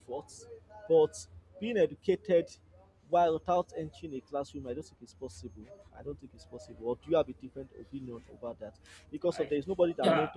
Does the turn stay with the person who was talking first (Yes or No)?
Yes